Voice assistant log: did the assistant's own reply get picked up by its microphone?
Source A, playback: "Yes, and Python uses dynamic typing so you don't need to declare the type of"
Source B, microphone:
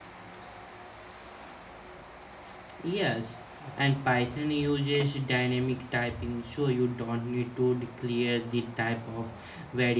Yes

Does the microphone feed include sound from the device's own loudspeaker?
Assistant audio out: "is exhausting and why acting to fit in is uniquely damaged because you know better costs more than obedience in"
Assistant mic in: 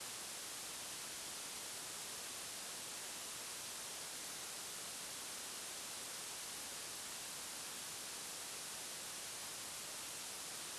No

